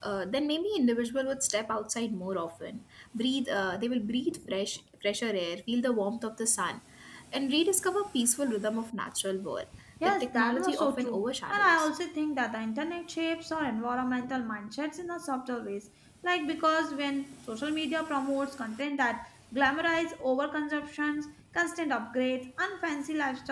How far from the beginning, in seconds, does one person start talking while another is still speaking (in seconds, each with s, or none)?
10.0 s